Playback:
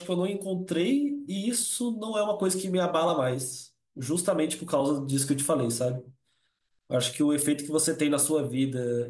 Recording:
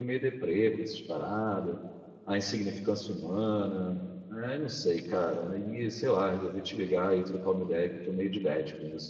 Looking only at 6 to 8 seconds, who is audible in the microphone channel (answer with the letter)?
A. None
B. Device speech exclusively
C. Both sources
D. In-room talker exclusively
D